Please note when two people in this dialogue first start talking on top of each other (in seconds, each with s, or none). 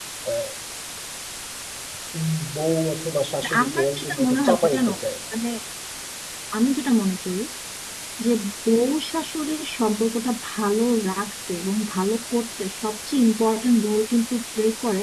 3.4 s